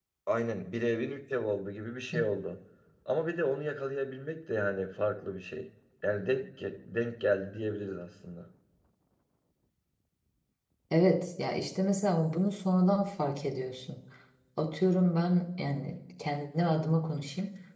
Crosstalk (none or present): none